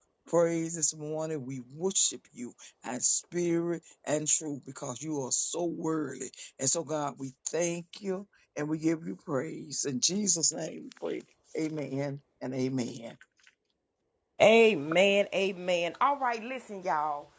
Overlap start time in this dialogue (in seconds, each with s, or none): none